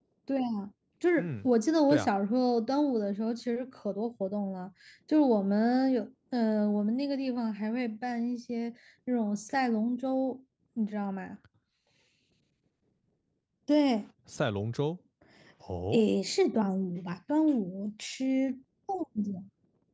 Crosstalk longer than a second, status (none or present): none